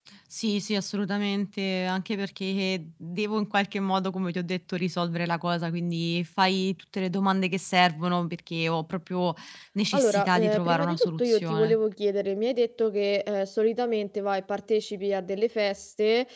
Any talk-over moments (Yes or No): Yes